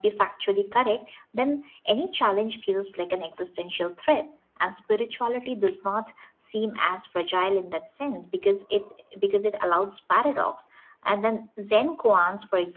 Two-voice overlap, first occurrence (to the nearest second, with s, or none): none